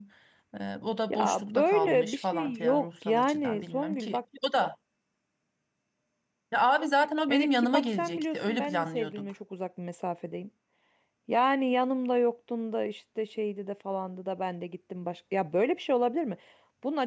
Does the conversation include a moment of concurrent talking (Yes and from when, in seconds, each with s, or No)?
Yes, from 1.1 s